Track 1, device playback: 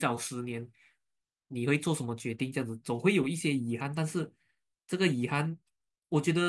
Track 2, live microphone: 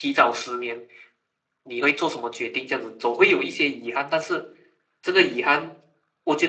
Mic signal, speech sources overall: echo only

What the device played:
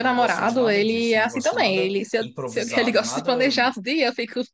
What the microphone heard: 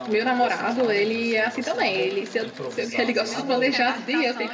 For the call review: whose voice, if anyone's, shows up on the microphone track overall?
both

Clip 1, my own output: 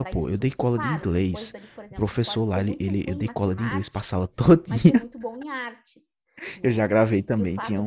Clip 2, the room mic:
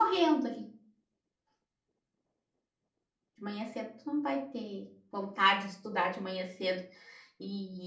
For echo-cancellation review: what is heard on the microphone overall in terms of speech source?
user only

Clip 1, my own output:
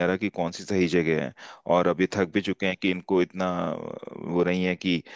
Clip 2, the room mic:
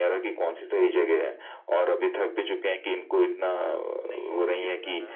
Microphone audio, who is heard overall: both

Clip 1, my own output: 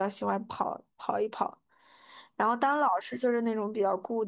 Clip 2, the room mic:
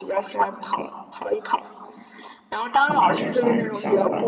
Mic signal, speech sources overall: both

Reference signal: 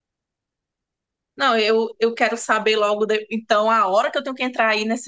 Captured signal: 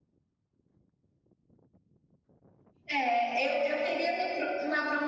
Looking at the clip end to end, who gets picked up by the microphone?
user only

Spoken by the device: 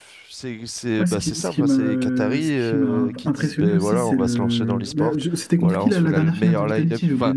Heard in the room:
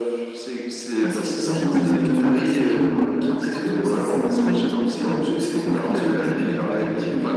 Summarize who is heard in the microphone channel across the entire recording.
both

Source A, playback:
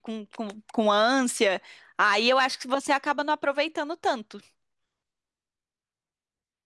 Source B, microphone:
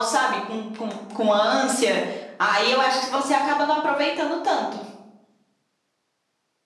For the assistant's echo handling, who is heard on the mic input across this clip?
echo only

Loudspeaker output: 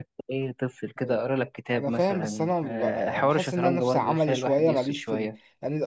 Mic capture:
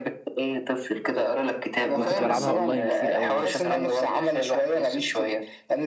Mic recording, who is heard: both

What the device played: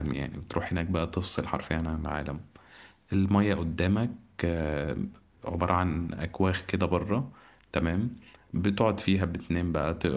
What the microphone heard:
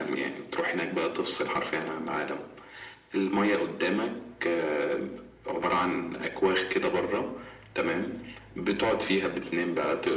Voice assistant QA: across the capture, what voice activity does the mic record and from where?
echo only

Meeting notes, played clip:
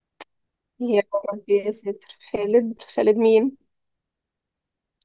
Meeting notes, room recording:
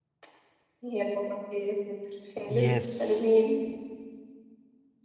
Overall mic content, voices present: both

